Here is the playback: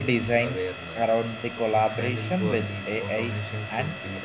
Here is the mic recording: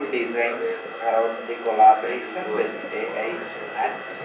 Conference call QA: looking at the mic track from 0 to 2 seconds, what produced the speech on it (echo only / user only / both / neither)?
echo only